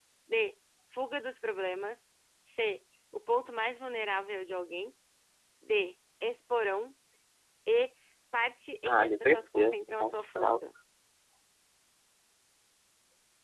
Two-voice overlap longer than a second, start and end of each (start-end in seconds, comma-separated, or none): 8.9-10.6